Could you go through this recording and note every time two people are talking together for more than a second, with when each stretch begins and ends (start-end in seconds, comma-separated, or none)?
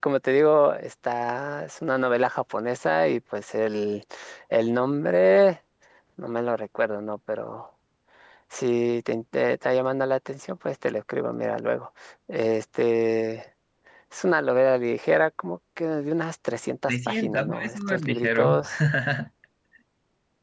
16.9-18.6